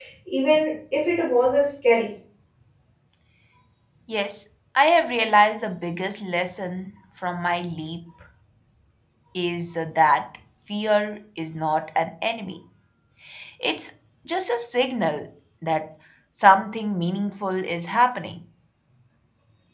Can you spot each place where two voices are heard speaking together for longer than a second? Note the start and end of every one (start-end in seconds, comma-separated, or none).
none